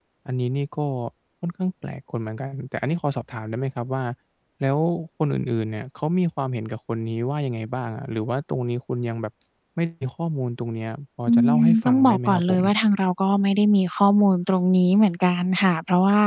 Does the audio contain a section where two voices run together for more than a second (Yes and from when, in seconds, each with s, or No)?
Yes, from 11.3 s